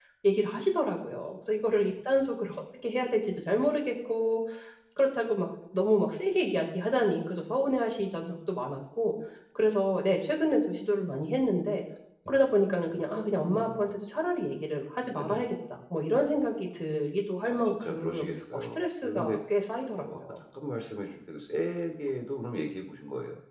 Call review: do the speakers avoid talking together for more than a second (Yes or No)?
No